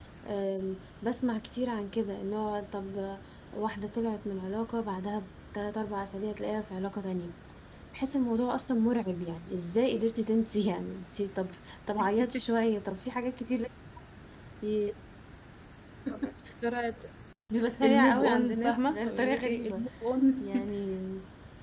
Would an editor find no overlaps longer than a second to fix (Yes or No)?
No